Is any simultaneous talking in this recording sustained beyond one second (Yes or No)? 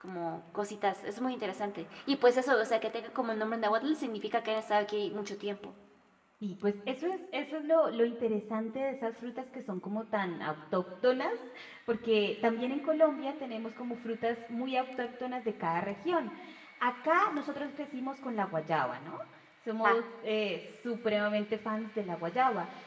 No